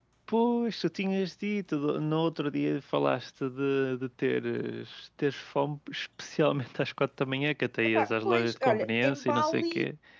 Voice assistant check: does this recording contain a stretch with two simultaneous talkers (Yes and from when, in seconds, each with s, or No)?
Yes, from 8.0 s